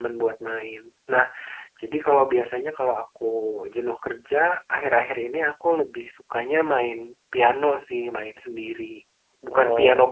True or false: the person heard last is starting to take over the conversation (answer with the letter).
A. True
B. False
B